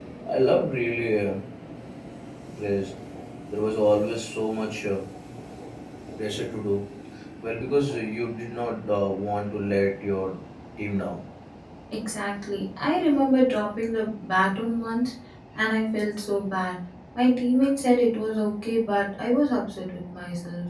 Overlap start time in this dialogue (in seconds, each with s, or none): none